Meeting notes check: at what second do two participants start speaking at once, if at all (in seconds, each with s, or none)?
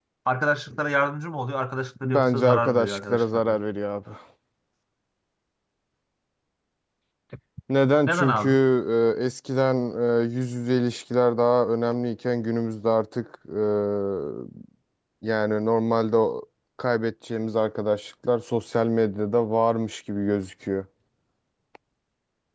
2.0 s